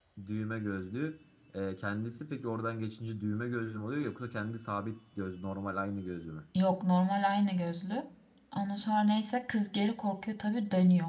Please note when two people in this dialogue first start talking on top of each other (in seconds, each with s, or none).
none